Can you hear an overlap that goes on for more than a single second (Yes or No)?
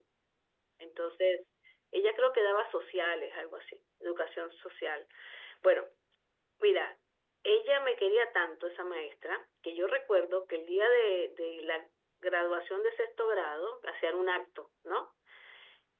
No